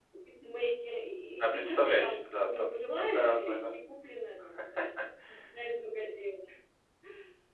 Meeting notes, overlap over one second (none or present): present